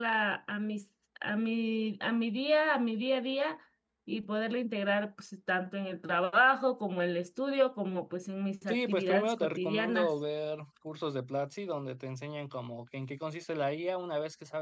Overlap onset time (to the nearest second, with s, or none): 9 s